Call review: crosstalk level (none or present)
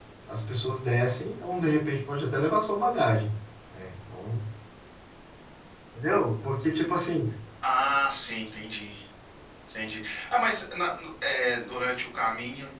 none